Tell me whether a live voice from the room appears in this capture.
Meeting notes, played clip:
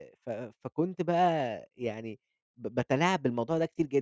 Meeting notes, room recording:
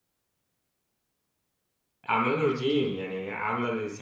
Yes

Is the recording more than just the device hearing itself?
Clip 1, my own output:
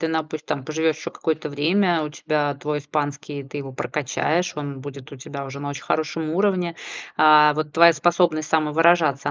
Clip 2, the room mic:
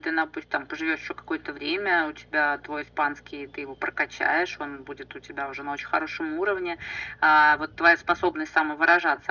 No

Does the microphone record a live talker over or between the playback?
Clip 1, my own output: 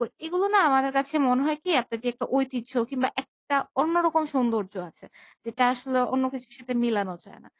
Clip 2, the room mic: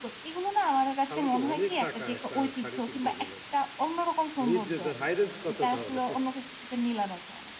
Yes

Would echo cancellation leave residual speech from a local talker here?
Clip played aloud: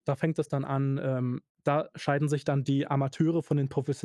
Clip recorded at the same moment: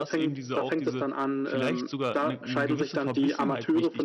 Yes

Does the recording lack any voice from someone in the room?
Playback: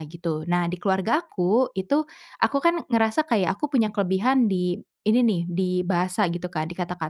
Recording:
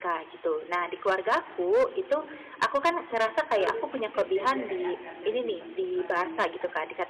No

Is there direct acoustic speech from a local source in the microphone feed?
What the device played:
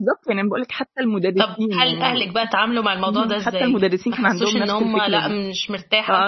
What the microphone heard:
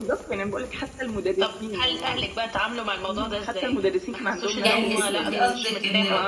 Yes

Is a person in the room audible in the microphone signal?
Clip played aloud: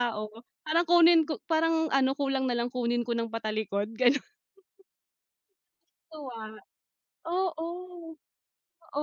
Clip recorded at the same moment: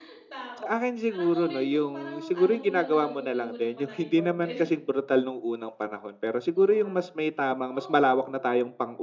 Yes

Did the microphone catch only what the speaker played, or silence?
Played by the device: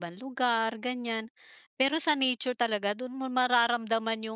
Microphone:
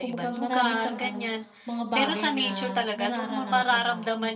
No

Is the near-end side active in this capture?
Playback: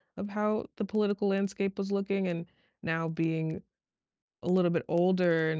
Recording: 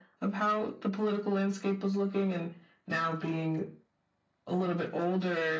No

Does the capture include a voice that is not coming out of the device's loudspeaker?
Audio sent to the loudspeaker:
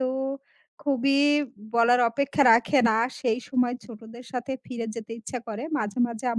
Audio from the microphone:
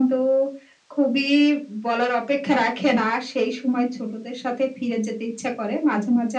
No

